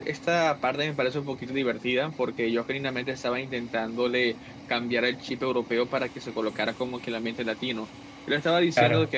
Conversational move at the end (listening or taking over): listening